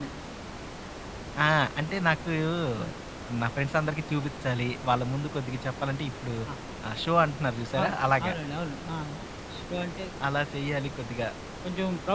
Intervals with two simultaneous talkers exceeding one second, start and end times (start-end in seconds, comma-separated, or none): none